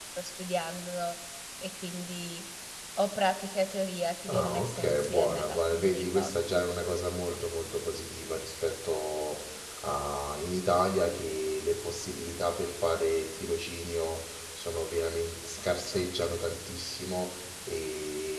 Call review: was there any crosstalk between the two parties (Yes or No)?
Yes